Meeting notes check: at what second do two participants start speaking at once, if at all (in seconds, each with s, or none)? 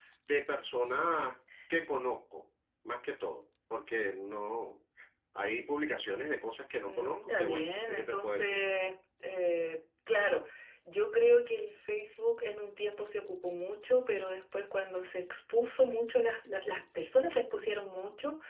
6.8 s